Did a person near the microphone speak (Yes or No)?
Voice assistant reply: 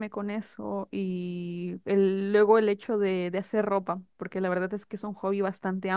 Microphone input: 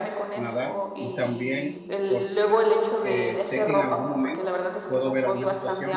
Yes